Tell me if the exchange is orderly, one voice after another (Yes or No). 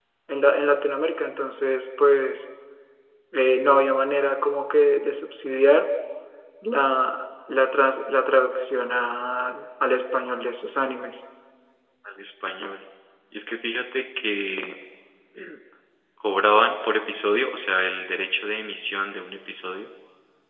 Yes